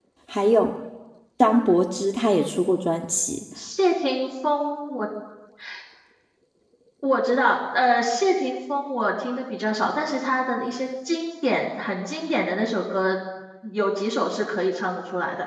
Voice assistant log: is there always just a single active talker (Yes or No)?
Yes